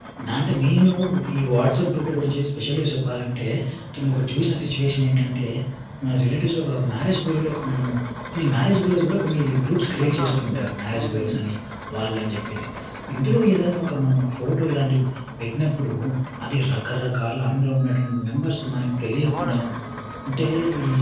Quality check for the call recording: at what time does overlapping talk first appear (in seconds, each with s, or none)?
10.0 s